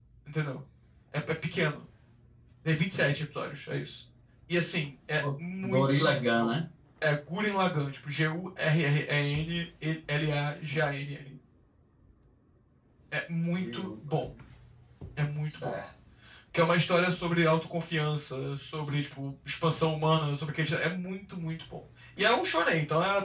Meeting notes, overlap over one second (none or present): present